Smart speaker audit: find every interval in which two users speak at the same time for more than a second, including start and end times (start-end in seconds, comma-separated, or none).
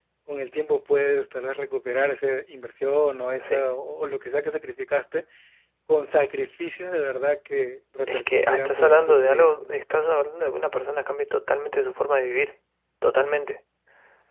8.1-9.7